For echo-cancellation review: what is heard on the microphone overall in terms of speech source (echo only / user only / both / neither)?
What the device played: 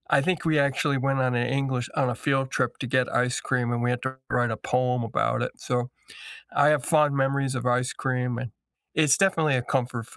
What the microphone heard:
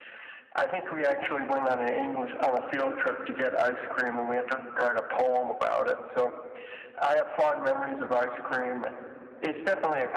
echo only